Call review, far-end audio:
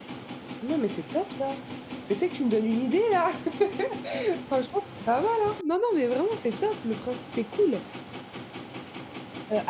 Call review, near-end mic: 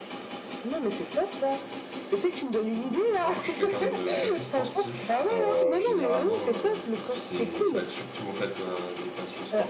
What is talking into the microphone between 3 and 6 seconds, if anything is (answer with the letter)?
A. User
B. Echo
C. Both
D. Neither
C